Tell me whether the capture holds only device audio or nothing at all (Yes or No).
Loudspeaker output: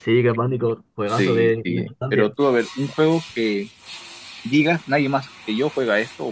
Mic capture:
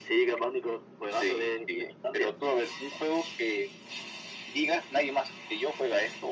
Yes